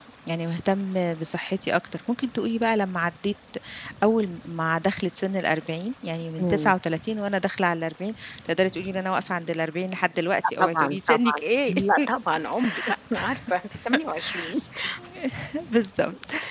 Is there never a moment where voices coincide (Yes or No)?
No